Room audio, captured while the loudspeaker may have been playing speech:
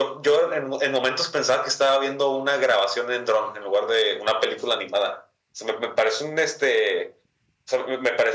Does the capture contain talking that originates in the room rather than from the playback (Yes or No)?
No